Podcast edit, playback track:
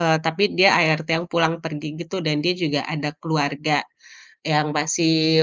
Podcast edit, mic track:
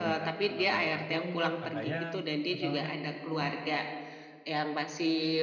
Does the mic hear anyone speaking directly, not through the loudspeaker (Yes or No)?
Yes